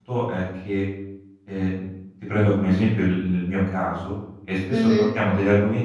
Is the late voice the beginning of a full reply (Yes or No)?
No